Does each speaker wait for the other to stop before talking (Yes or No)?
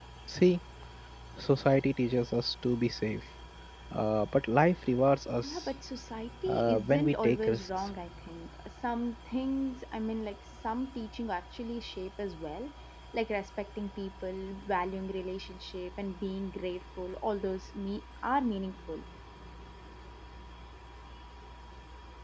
No